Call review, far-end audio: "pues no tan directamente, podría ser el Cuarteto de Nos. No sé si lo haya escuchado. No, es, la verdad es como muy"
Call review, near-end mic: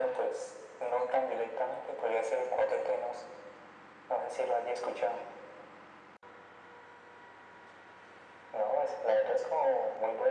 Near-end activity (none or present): none